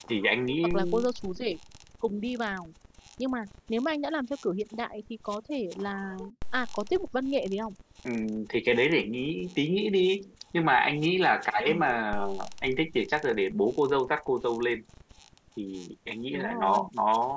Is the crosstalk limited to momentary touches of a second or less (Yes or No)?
Yes